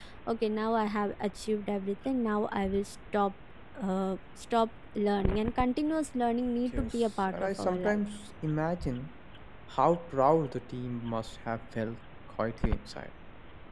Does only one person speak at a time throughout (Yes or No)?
No